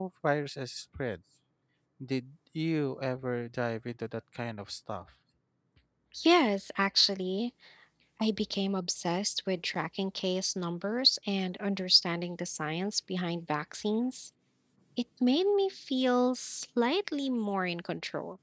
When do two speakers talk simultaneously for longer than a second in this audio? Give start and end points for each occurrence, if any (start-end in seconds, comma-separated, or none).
none